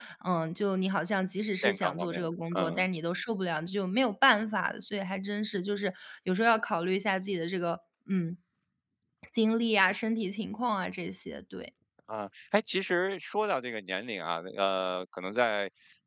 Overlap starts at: 1.6 s

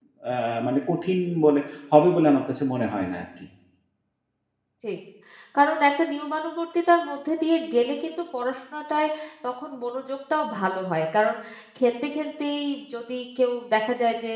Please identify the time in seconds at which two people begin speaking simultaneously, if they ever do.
none

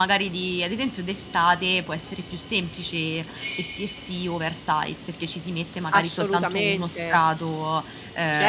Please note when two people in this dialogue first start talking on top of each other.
5.9 s

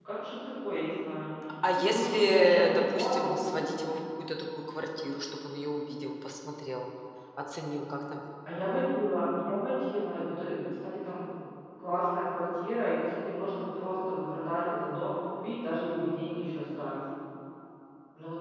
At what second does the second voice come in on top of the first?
1.8 s

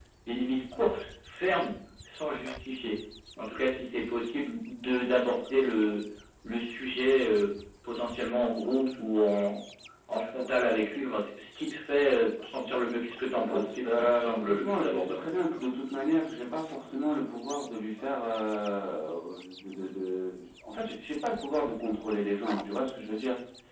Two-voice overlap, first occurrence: 13.3 s

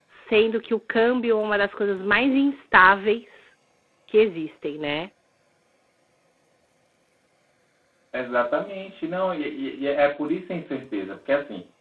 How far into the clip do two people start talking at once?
none

